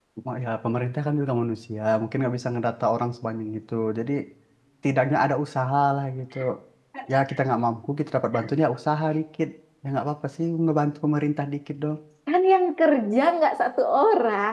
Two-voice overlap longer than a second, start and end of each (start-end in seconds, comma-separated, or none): none